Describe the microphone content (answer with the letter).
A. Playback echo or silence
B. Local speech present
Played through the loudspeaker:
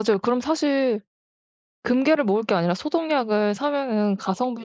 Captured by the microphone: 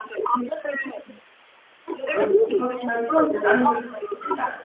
B